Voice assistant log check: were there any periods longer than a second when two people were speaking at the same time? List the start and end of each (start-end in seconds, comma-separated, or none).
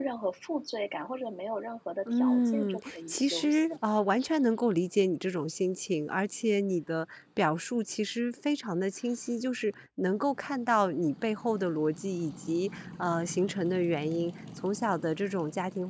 2.1-3.8